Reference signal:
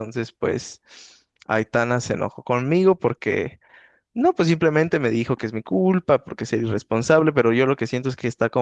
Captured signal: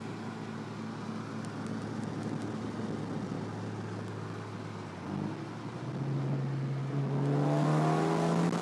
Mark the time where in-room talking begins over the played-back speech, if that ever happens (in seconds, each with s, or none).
none